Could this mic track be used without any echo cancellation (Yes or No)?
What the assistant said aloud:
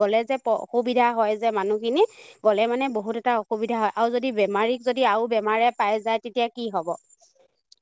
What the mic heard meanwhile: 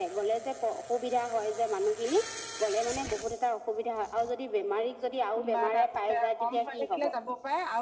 No